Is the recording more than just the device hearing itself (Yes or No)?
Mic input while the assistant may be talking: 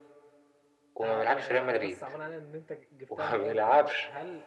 Yes